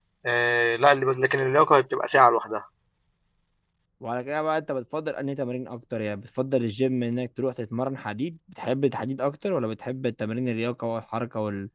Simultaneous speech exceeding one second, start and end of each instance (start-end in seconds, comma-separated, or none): none